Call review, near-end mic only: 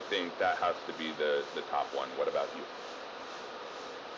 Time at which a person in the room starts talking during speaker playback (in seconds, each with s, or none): none